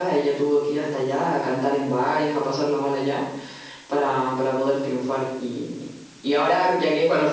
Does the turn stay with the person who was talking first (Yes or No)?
Yes